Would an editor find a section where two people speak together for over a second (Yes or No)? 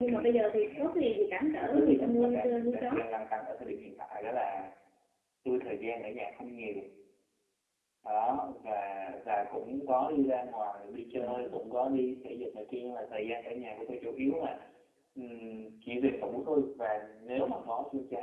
Yes